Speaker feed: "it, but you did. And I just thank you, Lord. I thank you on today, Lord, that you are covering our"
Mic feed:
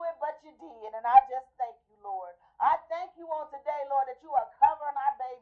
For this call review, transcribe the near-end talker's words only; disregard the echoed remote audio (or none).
none